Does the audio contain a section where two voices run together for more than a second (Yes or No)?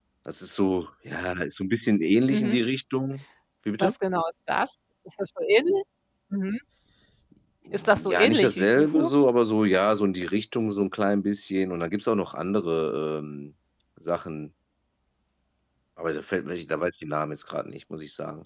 Yes